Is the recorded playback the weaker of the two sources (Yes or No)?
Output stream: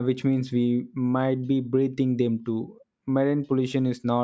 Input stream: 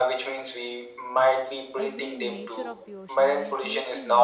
No